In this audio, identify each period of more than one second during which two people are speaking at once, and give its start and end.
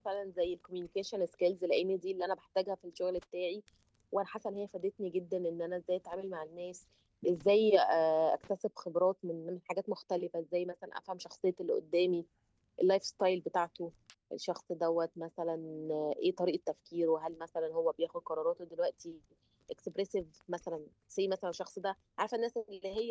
none

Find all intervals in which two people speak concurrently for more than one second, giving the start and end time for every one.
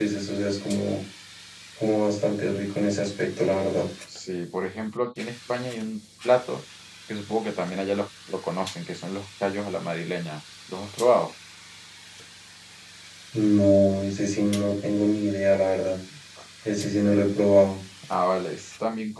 none

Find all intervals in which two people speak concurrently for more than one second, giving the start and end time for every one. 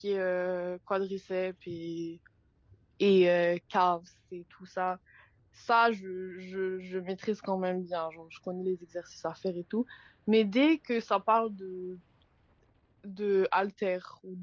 none

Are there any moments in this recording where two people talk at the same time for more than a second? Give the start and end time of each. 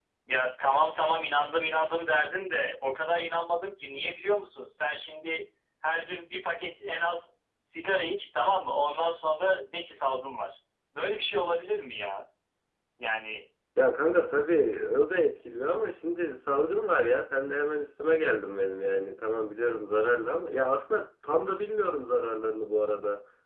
none

